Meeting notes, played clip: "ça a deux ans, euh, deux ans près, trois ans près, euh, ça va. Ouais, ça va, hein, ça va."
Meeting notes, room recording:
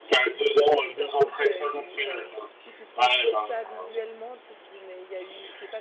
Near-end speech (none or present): present